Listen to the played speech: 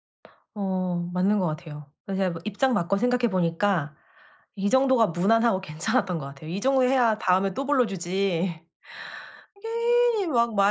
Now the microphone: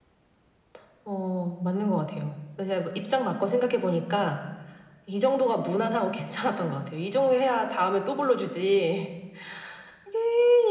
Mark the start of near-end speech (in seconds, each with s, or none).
none